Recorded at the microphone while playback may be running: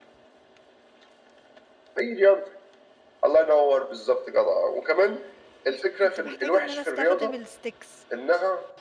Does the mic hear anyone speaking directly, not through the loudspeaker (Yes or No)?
Yes